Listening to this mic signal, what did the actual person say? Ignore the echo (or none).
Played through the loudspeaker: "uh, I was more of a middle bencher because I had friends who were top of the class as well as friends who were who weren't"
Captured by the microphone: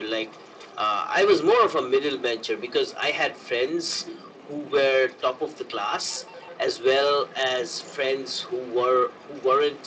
none